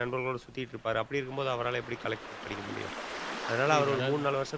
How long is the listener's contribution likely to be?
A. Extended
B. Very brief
B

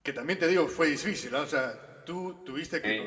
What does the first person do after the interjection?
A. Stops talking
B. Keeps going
B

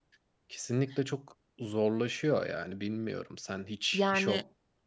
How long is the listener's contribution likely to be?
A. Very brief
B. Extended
A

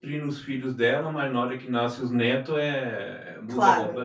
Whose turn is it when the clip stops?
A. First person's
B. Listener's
B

